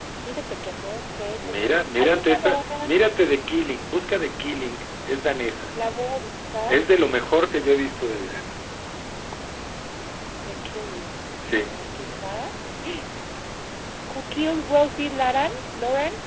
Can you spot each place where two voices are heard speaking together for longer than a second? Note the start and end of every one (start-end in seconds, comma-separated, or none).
1.4-2.9